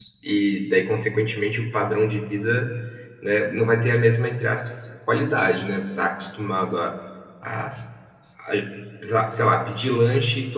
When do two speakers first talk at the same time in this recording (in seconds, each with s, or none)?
none